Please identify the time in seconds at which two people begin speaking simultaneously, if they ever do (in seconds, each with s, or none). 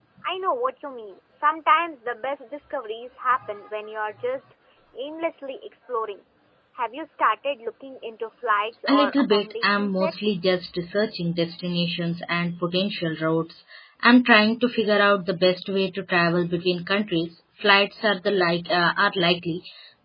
8.9 s